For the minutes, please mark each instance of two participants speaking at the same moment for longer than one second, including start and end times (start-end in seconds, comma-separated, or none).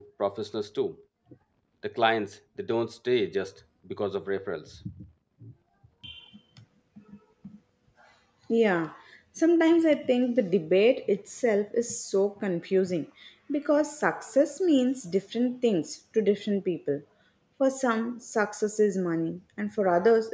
none